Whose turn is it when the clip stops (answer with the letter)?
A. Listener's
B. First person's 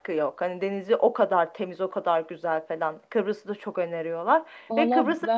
A